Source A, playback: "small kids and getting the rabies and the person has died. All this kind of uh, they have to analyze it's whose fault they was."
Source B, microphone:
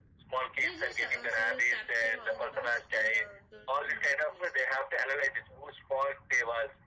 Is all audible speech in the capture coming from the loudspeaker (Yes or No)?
No